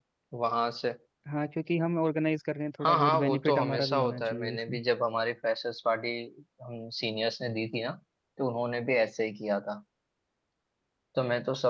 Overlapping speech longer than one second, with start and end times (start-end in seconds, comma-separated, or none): 2.8-4.8